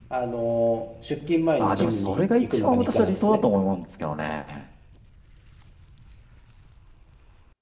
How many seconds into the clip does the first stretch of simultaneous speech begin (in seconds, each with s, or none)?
1.6 s